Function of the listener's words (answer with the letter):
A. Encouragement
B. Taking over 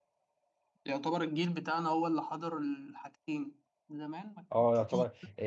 B